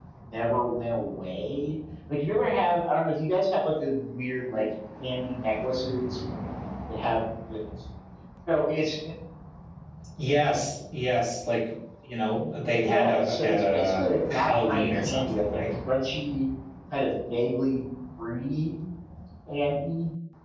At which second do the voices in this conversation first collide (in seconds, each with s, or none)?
12.4 s